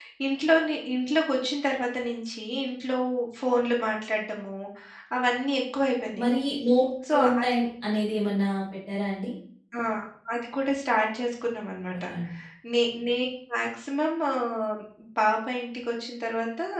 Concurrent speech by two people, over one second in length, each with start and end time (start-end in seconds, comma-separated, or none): none